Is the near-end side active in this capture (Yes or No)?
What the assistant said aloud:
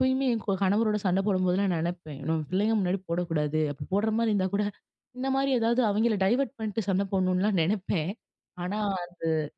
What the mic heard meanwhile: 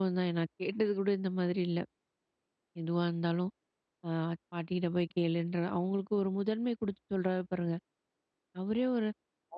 Yes